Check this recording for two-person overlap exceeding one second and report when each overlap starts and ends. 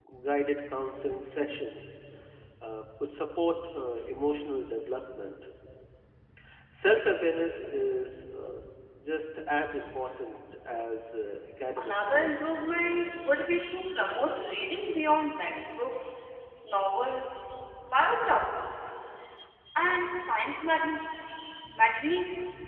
11.8-13.3

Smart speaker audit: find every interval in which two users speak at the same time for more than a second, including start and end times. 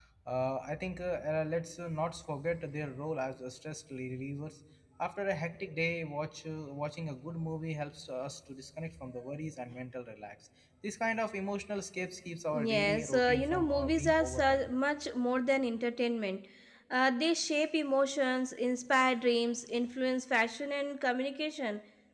12.6-14.7

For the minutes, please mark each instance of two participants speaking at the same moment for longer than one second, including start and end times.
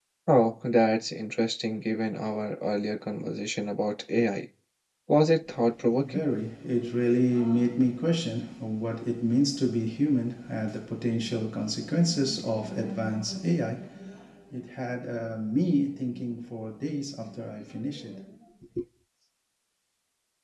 none

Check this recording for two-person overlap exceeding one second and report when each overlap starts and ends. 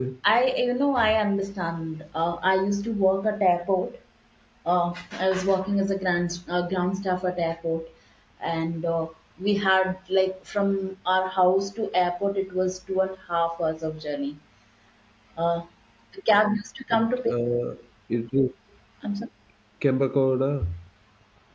none

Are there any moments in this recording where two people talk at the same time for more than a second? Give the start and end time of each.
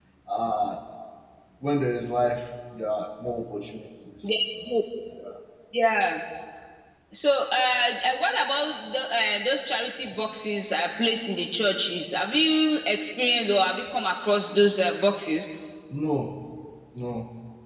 none

